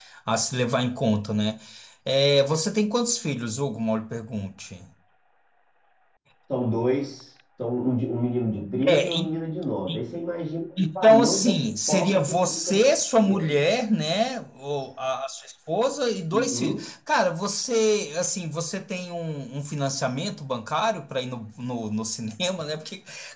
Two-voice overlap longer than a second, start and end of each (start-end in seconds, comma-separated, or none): 10.8-12.8